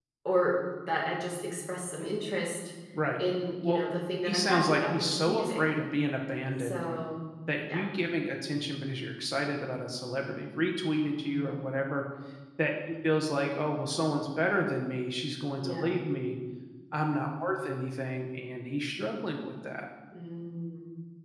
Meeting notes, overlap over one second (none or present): present